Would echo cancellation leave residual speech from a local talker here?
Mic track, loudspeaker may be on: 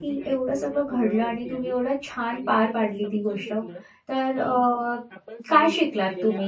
Yes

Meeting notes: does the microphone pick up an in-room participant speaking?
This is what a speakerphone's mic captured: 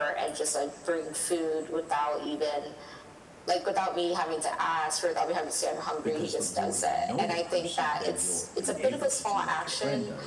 Yes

